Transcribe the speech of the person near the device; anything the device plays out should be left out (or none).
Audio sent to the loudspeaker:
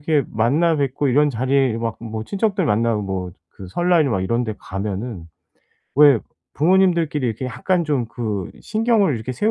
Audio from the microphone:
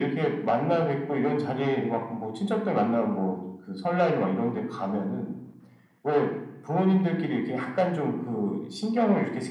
none